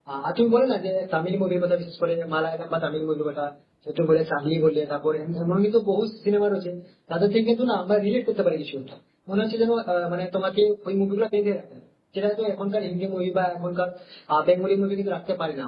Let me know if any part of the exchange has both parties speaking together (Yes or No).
No